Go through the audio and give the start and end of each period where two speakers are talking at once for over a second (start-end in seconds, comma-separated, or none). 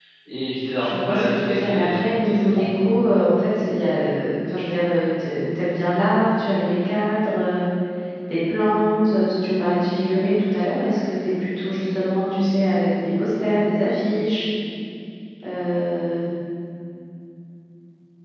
0.8-2.6